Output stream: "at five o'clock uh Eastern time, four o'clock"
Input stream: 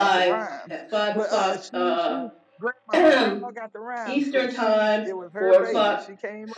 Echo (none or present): present